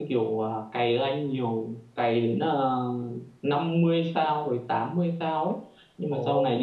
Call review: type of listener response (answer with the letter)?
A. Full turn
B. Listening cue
B